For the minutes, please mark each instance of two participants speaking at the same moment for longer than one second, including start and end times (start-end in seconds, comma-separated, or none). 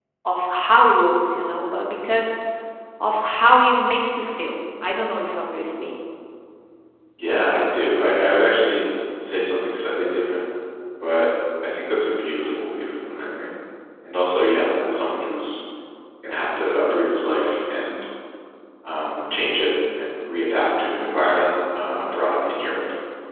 none